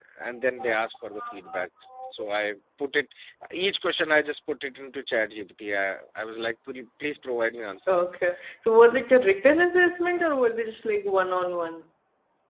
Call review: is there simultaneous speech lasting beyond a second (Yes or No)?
No